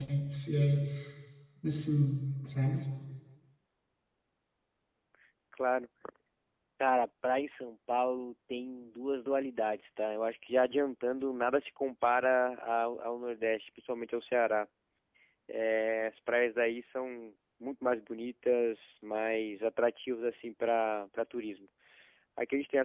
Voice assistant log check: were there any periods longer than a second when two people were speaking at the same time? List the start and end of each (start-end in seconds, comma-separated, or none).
none